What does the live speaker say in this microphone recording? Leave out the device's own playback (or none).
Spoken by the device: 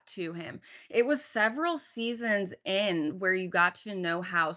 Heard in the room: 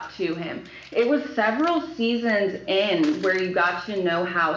none